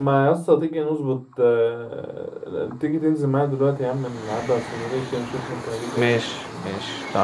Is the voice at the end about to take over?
Yes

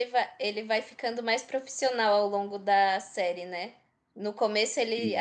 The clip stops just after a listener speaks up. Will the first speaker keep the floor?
Yes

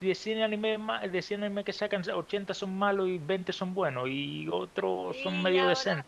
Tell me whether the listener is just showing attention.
No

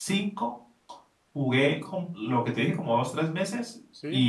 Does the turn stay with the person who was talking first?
Yes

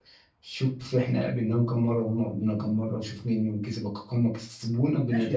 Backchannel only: No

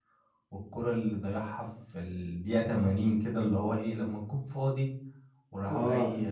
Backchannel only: Yes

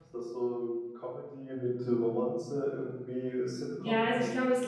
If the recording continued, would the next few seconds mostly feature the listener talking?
Yes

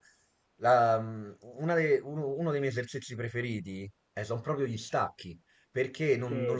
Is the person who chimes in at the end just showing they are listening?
Yes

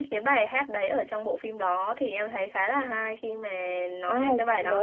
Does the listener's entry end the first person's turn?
Yes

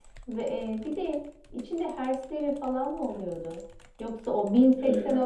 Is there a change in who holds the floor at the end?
No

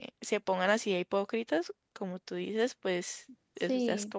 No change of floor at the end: No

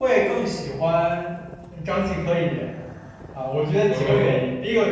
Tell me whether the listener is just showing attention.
Yes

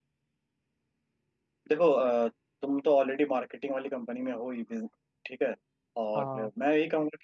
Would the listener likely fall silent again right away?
Yes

